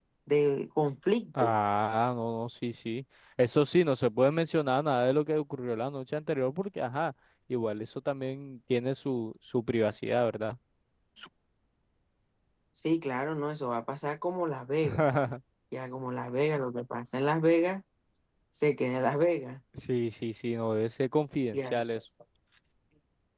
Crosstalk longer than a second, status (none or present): none